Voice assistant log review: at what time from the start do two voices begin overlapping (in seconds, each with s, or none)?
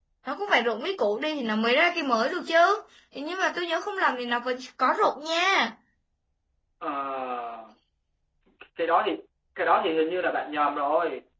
none